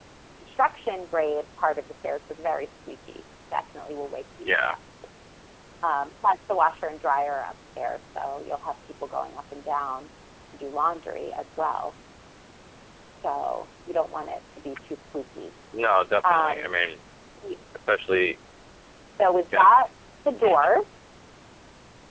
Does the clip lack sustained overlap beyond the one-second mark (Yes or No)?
Yes